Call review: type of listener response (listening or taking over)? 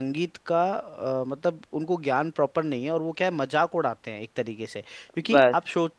listening